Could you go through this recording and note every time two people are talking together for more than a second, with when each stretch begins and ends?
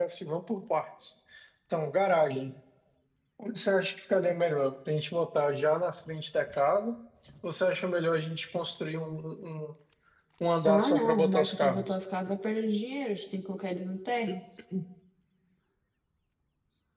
10.6-11.9

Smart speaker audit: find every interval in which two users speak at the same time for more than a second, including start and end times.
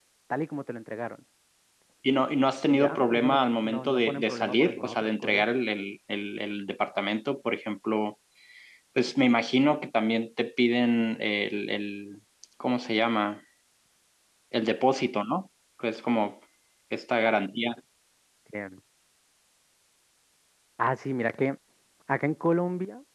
2.7-5.4

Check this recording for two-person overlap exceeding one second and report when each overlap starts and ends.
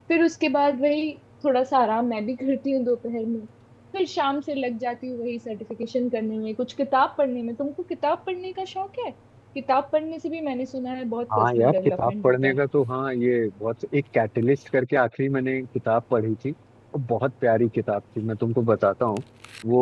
11.4-12.6

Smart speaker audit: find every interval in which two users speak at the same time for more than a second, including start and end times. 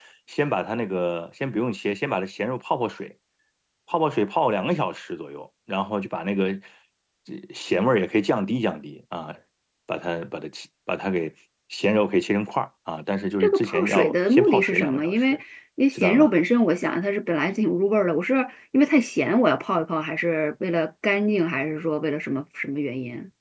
13.4-15.2

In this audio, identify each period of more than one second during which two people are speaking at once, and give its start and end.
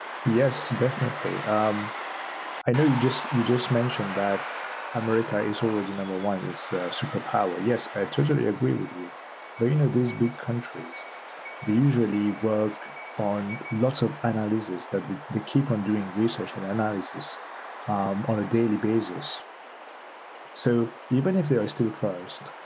none

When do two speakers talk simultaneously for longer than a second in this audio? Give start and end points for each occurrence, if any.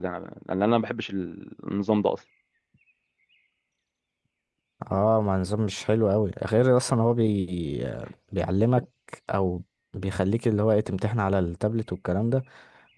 none

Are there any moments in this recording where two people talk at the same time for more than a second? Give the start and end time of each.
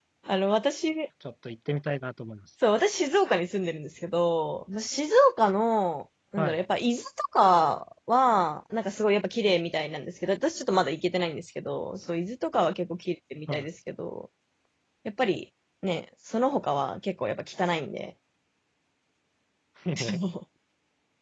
none

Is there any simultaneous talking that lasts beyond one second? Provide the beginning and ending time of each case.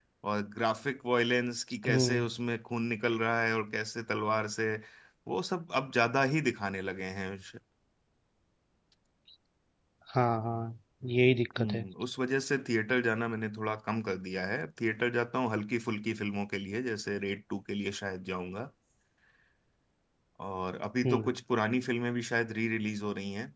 none

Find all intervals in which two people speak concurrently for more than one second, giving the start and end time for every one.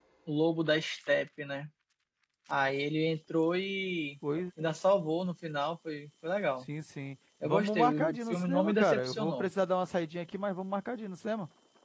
7.4-9.5

